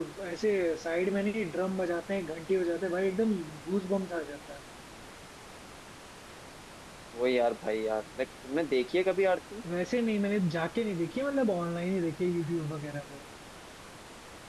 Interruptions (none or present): none